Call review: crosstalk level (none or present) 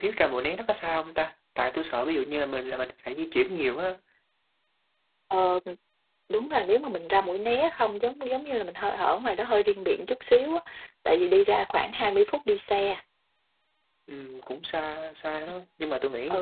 none